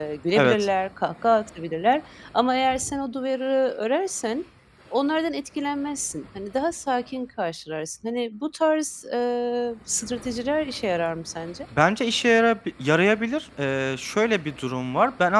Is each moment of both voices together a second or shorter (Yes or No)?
Yes